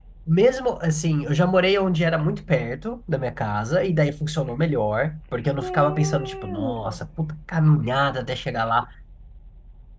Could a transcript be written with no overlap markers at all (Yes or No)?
No